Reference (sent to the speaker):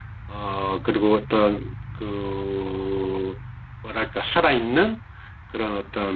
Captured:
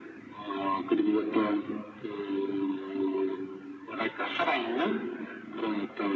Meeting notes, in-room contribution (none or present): none